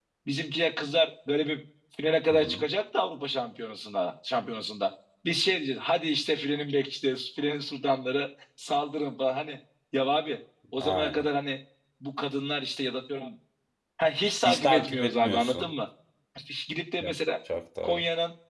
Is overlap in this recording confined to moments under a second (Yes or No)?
No